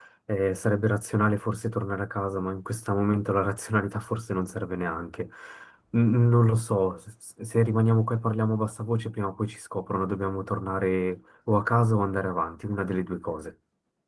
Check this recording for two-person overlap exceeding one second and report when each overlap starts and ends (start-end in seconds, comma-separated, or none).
none